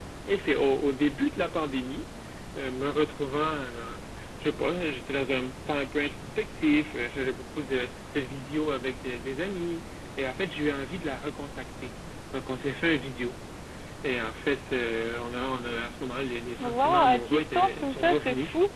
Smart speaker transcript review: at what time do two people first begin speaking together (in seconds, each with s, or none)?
16.6 s